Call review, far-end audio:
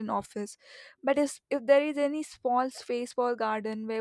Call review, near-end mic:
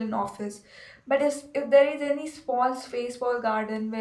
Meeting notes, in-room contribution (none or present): none